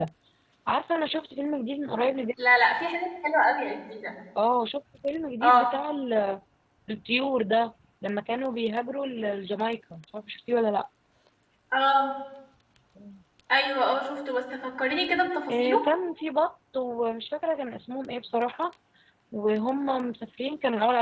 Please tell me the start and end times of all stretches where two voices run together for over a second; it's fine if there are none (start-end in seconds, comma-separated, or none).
none